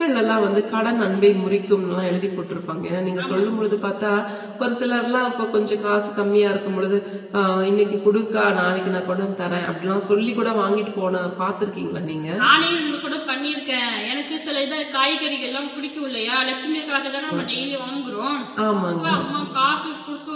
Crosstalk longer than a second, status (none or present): none